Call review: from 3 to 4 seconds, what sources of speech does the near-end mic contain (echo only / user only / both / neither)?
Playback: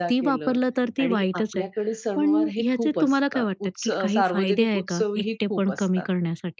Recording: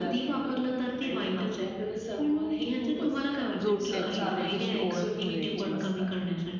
both